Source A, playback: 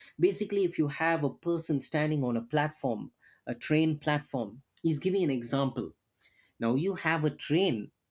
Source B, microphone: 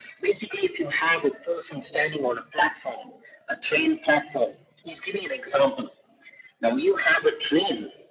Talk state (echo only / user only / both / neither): echo only